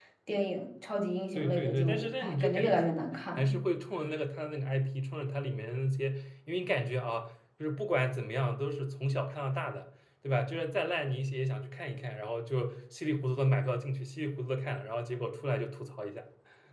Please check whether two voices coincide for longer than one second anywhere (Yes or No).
Yes